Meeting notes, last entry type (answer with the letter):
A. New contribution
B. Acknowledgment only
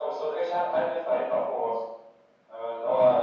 A